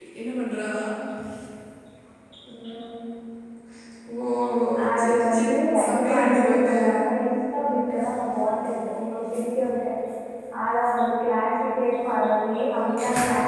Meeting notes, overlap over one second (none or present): present